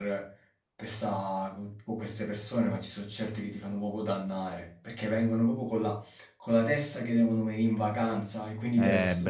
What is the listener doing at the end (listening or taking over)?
taking over